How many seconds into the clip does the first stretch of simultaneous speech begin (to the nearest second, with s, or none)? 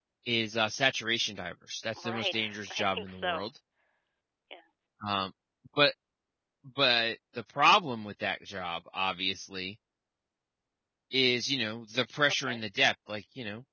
2 s